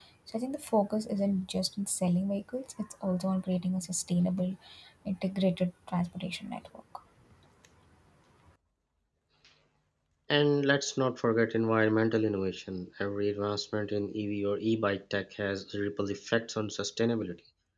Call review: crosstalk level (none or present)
none